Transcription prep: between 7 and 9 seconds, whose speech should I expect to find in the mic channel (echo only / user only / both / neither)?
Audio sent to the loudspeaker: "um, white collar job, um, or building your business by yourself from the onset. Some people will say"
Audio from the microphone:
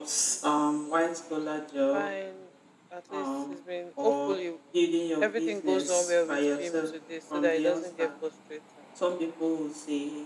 both